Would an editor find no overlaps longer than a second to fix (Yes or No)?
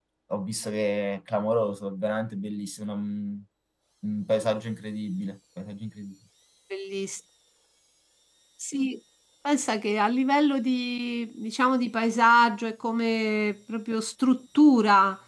Yes